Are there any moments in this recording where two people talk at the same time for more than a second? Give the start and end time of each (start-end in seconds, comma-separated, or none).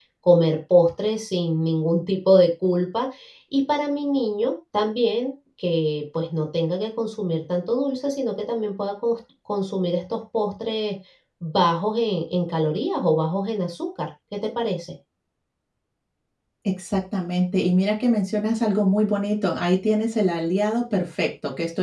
none